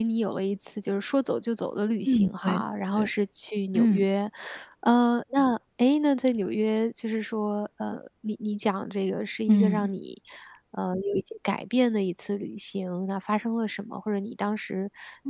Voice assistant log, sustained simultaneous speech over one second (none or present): none